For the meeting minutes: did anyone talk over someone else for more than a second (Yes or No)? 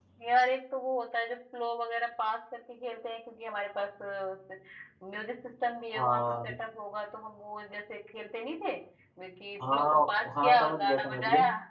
Yes